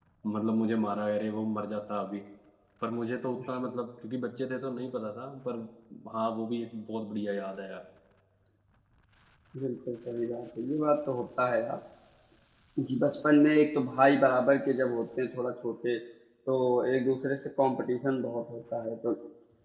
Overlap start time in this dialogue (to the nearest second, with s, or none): none